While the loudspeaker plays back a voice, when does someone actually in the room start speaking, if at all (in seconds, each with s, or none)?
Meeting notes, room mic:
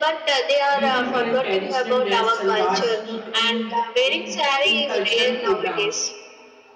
0.7 s